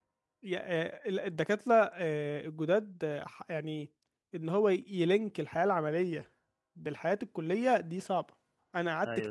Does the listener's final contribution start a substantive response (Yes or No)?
No